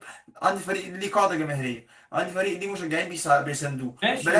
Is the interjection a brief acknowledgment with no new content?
No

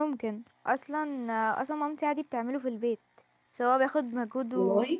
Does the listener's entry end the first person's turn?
No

